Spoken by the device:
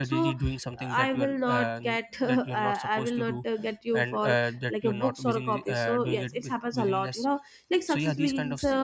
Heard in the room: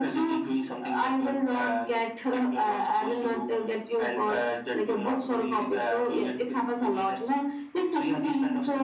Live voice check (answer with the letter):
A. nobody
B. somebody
A